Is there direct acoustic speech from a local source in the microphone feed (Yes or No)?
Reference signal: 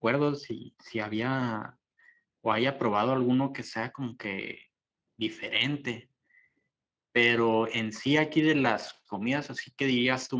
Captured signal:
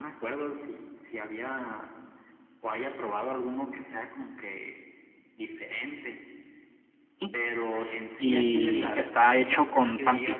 Yes